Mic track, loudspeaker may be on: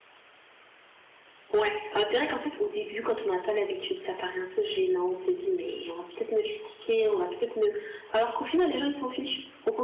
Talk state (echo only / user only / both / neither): user only